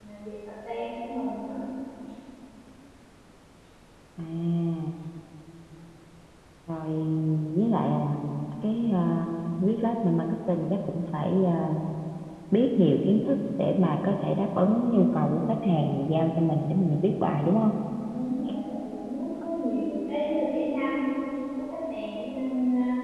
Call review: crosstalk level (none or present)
none